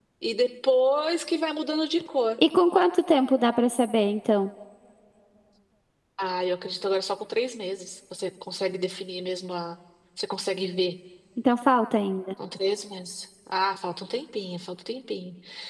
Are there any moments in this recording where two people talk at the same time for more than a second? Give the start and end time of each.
none

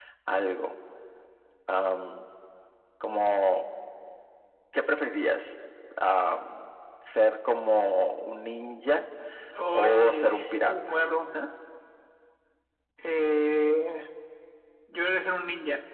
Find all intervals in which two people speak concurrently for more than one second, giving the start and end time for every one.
9.7-11.0

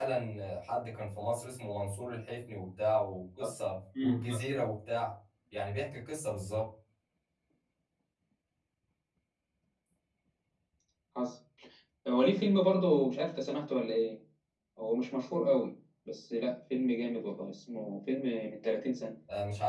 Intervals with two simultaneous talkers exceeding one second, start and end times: none

